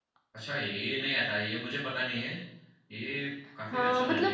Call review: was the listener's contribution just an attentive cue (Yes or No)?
No